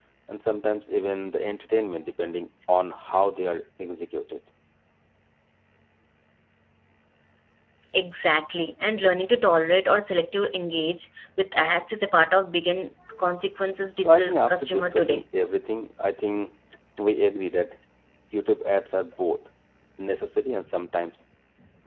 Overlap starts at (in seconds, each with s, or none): 14.0 s